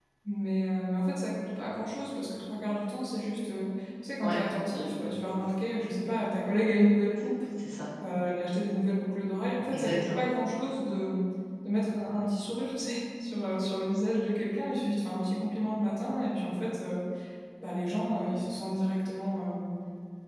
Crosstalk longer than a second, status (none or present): none